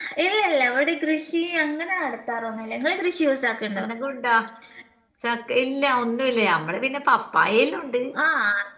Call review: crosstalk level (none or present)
none